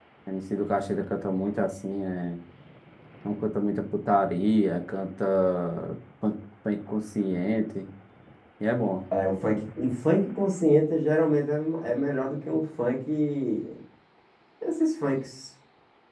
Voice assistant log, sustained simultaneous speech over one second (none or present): none